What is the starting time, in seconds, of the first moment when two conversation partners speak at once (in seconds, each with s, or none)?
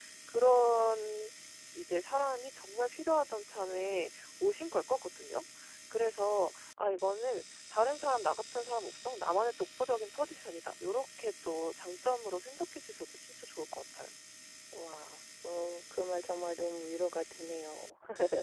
none